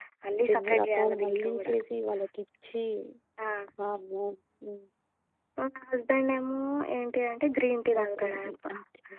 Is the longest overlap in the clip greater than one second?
Yes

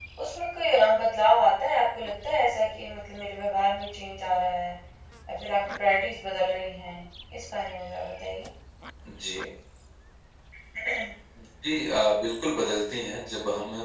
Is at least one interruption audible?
No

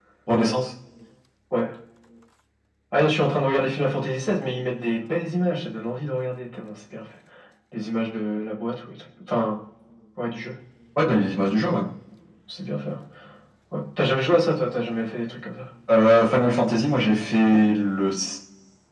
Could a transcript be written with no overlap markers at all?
Yes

